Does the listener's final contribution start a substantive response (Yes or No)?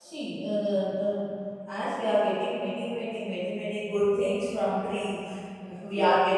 No